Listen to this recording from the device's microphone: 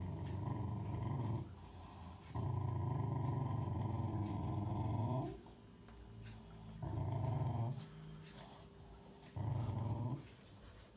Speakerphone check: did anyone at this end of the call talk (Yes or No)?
No